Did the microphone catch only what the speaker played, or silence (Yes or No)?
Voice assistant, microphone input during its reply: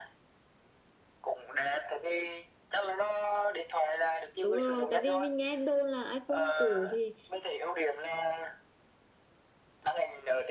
No